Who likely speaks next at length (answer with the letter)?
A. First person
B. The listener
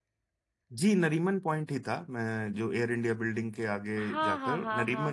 B